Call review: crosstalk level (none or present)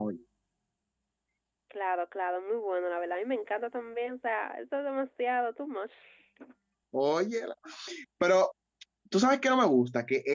none